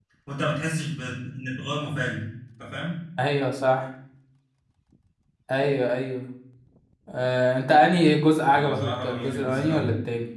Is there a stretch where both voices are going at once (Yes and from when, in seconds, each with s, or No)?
Yes, from 8.5 s